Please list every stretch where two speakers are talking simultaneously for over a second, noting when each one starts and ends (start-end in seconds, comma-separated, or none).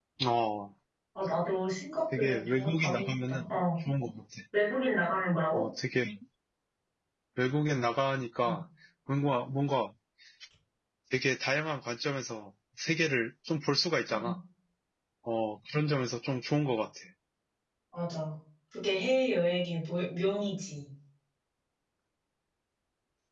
2.1-3.5